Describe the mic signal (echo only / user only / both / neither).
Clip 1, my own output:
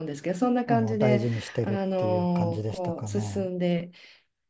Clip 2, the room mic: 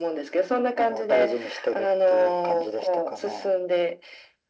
echo only